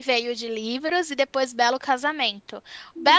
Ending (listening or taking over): listening